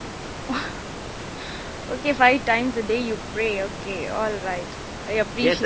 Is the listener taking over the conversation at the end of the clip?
Yes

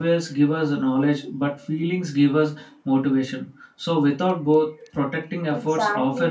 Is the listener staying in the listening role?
No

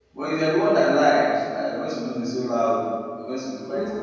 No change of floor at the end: No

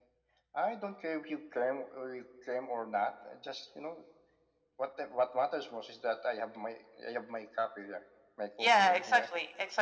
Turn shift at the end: Yes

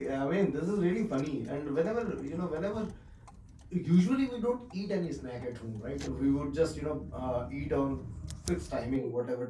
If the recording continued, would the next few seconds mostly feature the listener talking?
No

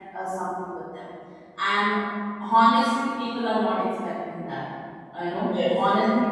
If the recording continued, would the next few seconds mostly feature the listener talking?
No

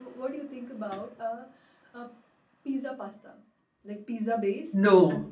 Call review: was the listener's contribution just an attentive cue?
Yes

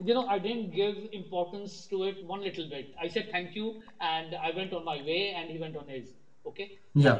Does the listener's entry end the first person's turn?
No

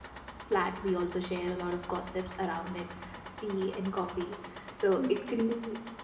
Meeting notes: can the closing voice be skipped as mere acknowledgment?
Yes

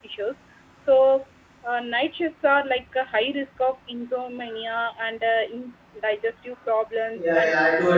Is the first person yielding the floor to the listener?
Yes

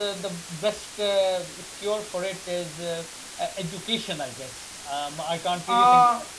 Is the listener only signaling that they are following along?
No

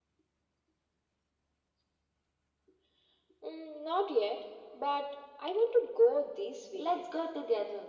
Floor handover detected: Yes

